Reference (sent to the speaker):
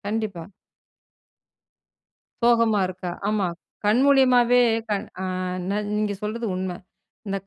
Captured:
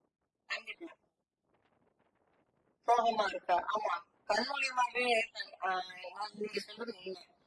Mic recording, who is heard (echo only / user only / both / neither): echo only